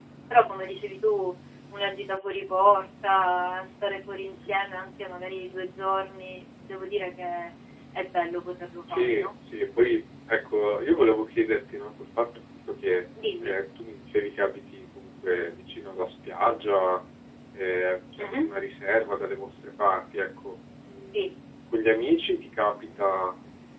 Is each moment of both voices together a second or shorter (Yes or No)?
Yes